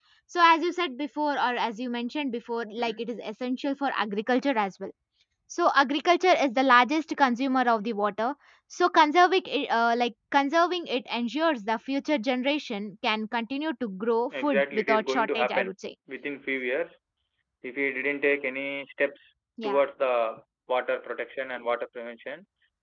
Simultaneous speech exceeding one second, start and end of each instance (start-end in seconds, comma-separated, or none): 14.4-15.7